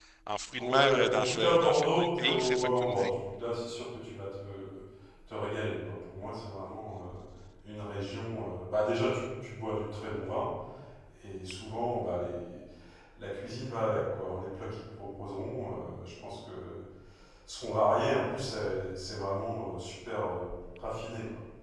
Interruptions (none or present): present